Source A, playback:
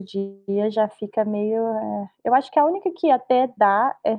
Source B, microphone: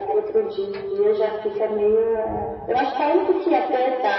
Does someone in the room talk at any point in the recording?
No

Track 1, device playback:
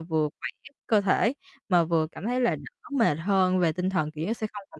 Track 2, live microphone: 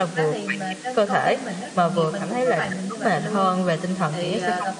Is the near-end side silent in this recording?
No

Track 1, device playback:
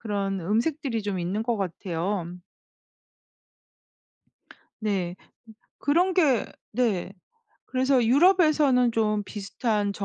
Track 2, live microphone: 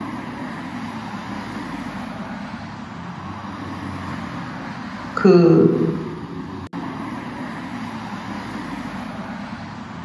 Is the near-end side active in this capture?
Yes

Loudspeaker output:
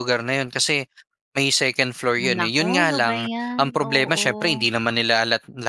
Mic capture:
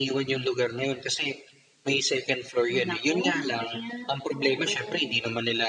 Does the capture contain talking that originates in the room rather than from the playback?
No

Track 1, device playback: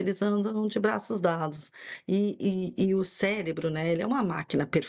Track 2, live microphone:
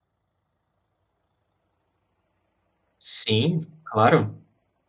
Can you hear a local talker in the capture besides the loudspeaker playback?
Yes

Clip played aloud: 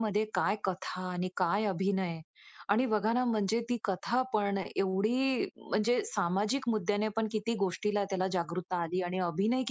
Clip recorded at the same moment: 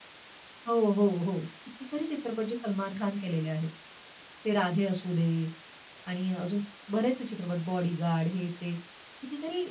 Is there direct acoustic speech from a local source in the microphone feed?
Yes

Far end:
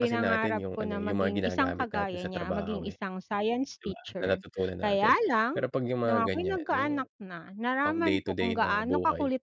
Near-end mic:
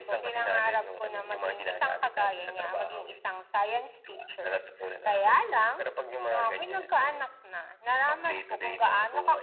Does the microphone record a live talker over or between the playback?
No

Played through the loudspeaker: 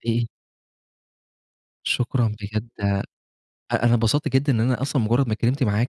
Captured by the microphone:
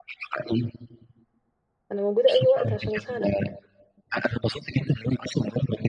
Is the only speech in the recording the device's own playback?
No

